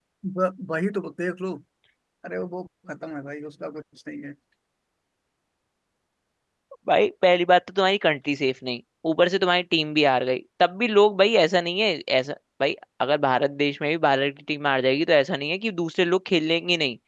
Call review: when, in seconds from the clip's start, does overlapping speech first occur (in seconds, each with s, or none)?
none